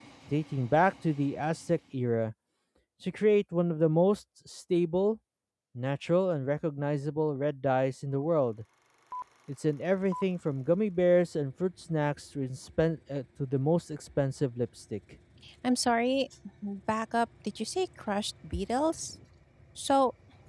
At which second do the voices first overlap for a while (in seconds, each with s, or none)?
none